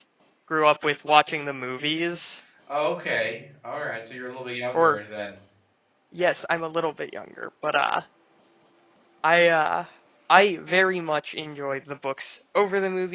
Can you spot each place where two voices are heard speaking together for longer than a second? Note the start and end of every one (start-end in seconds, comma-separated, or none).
none